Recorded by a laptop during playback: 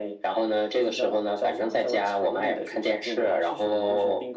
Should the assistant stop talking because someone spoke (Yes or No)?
No